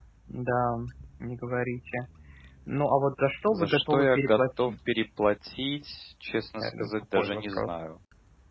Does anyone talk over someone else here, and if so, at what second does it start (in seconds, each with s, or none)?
3.5 s